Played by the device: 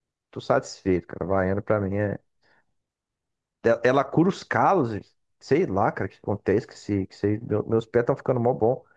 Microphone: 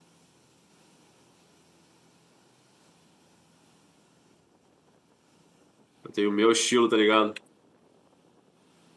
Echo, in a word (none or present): none